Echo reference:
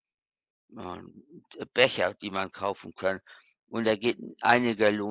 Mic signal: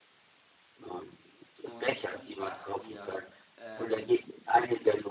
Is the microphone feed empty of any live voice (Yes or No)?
No